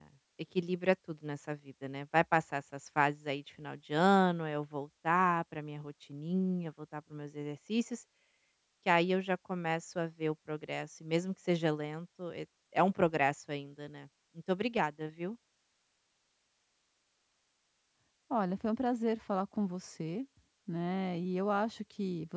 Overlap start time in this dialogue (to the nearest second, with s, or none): none